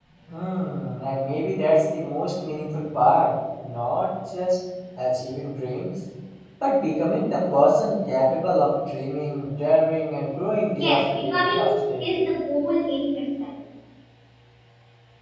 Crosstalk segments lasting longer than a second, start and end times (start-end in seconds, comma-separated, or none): 10.7-12.2